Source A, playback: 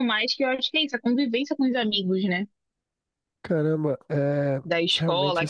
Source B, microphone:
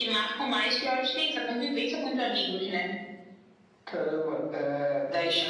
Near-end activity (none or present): none